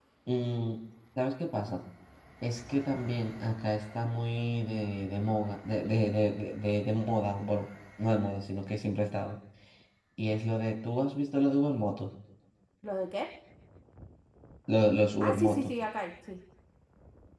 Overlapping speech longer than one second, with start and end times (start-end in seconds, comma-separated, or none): none